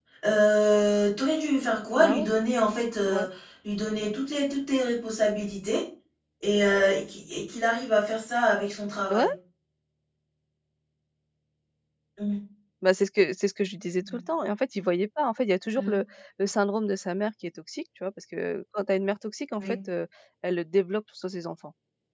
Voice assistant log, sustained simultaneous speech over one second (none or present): none